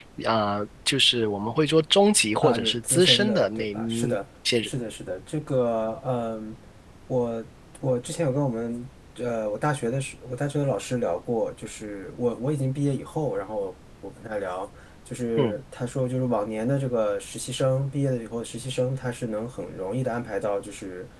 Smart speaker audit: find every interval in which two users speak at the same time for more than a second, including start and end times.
2.4-4.2

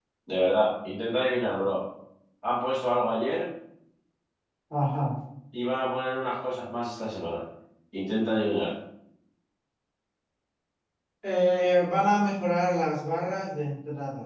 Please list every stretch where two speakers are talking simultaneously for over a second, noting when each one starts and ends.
none

